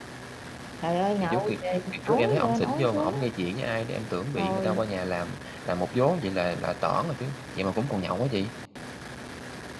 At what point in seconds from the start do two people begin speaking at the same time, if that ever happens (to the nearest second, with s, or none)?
1 s